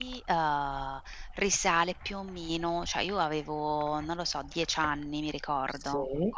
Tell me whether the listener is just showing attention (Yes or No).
Yes